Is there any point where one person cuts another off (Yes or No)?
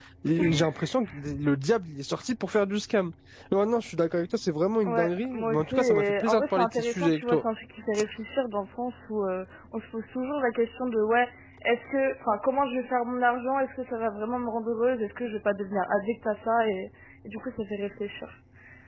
Yes